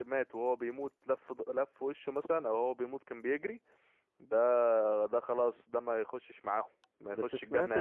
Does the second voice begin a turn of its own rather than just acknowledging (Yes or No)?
Yes